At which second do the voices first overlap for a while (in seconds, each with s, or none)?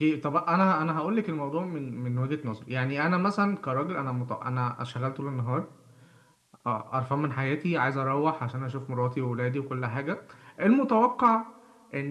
none